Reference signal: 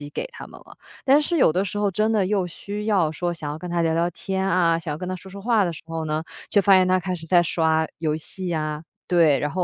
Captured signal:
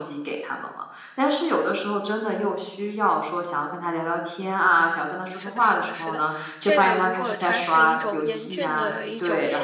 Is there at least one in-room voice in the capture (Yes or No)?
Yes